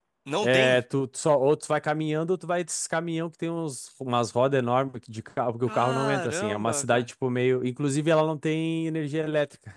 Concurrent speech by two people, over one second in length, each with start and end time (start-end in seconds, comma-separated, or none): 5.7-7.1